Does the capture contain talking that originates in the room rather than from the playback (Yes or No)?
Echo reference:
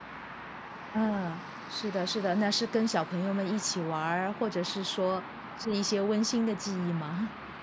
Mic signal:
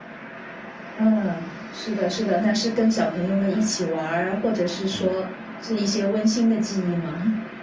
Yes